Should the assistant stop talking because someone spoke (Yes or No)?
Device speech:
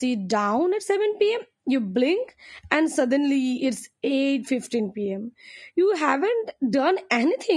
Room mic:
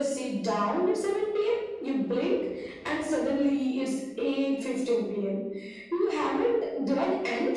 No